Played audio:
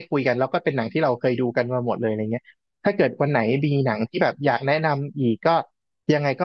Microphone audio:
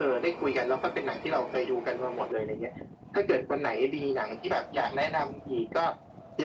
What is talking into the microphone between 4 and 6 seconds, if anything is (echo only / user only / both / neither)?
echo only